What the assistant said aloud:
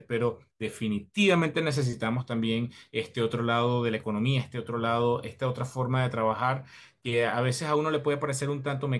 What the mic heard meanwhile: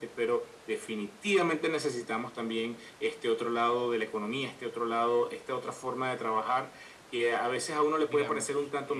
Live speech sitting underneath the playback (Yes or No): Yes